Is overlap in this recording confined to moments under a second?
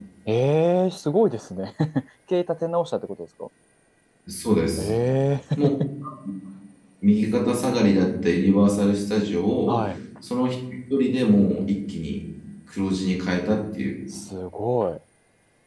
Yes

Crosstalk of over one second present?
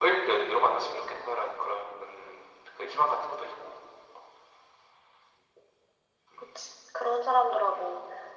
No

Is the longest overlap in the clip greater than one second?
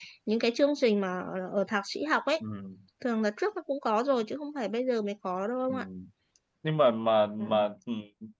No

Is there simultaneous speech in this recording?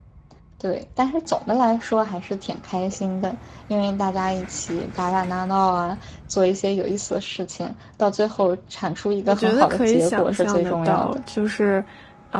Yes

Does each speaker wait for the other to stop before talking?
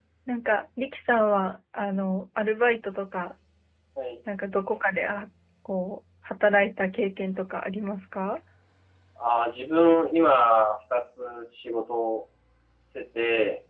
Yes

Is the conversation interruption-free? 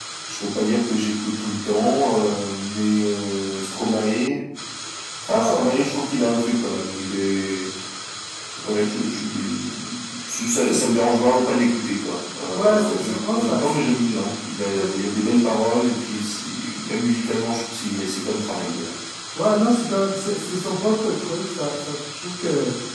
No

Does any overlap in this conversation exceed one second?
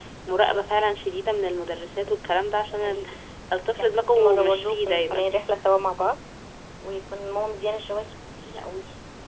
Yes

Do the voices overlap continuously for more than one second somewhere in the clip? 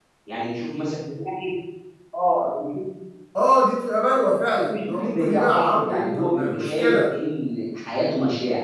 Yes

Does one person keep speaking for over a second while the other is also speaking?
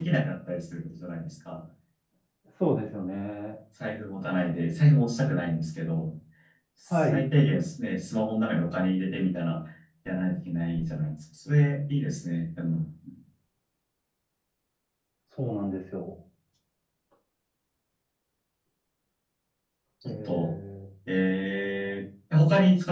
No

